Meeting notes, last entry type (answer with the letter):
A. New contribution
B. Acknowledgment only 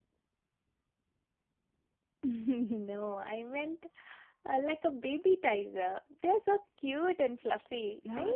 A